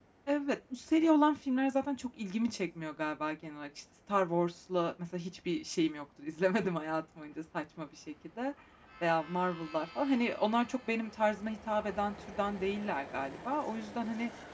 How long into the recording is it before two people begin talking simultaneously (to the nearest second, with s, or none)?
none